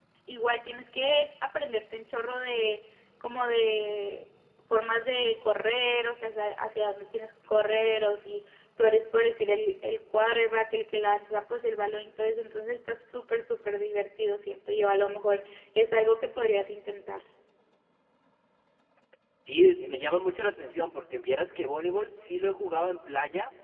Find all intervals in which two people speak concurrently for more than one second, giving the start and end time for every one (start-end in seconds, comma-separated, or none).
none